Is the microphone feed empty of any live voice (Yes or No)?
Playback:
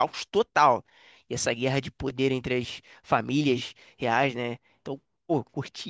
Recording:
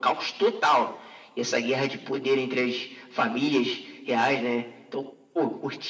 Yes